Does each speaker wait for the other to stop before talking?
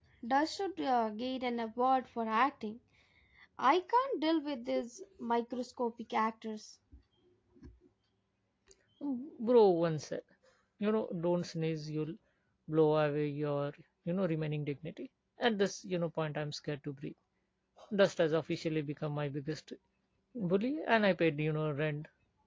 Yes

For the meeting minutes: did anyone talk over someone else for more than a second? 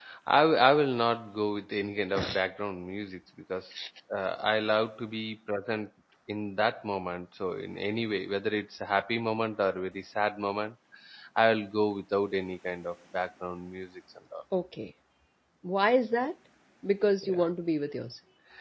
No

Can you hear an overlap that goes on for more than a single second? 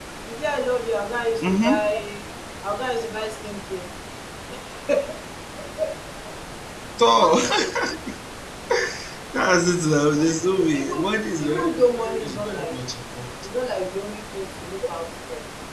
Yes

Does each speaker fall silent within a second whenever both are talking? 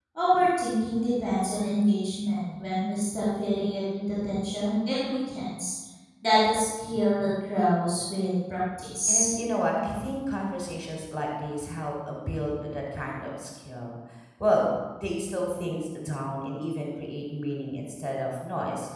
Yes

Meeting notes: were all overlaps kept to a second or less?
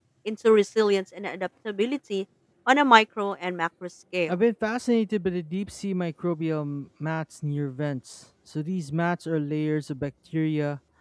Yes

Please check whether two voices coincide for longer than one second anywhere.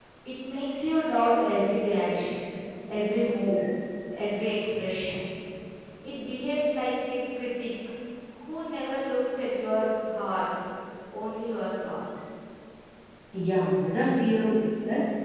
No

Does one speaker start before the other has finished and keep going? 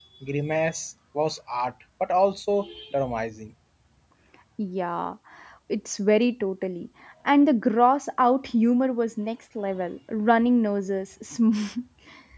No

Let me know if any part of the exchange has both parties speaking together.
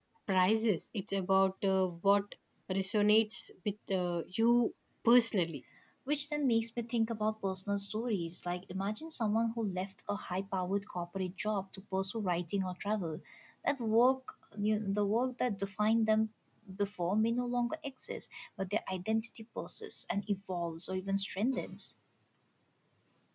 No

